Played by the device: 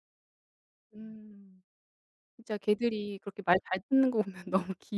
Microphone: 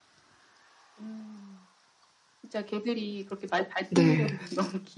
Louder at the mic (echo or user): user